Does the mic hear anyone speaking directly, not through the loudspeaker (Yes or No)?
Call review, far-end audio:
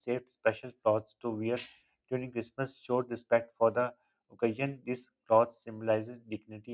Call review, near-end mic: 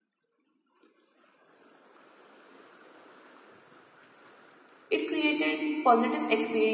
Yes